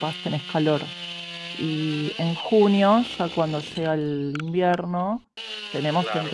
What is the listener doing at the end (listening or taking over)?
listening